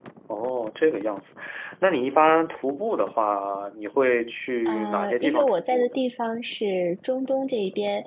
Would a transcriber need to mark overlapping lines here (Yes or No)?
Yes